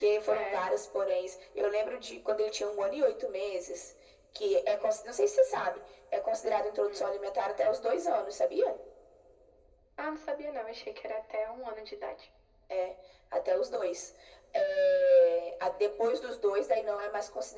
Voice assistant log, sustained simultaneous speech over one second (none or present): none